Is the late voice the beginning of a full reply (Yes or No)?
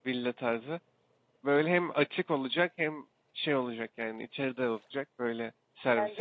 Yes